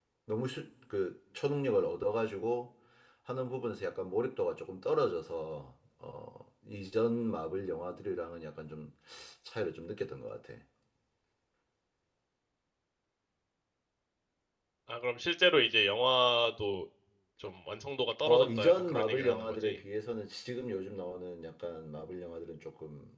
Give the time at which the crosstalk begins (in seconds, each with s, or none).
18.2 s